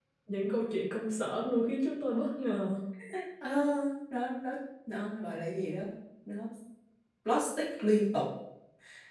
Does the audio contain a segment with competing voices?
No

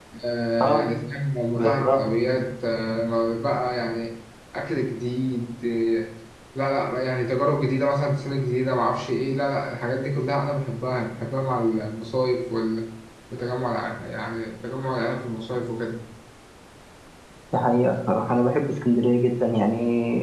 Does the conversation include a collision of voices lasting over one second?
No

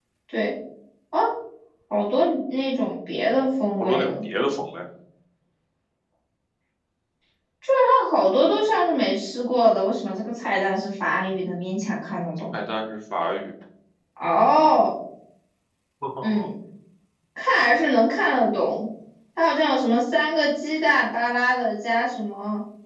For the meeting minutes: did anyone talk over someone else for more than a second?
No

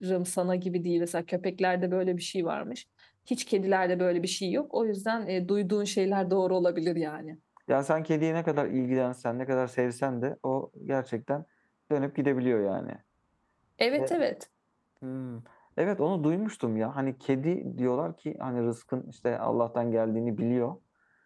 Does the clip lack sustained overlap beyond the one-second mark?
Yes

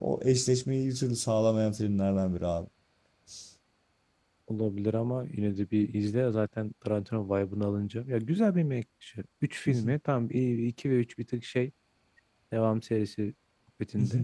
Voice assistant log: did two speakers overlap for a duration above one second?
No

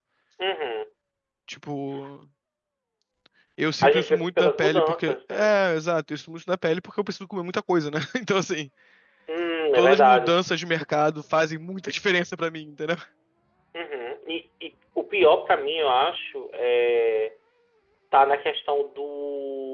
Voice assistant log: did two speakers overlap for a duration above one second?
Yes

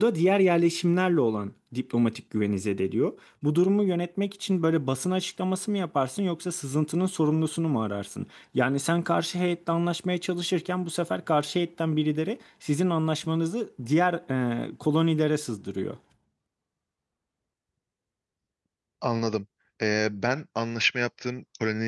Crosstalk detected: No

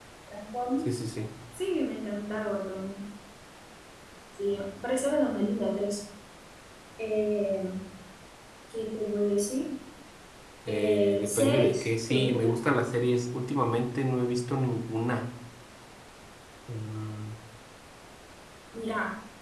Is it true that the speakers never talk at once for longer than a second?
No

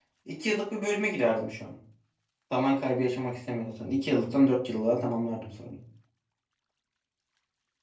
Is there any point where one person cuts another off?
No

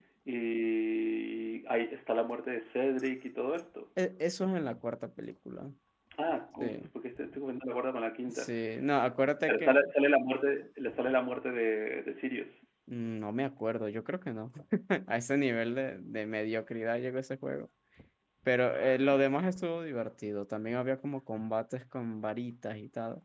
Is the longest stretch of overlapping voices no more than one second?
Yes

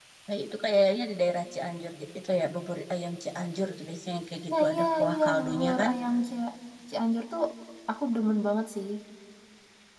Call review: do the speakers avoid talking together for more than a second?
No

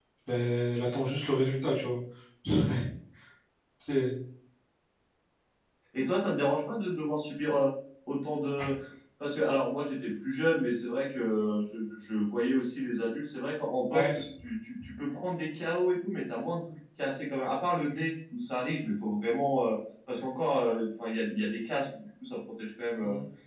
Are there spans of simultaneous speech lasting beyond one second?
No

